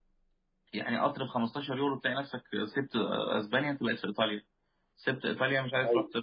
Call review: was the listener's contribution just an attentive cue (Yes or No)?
Yes